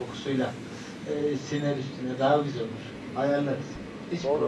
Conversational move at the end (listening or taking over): taking over